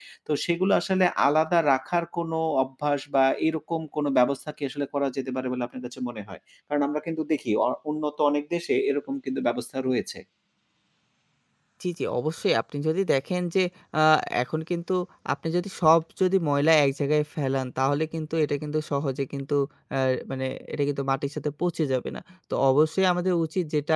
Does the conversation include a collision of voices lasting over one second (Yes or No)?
No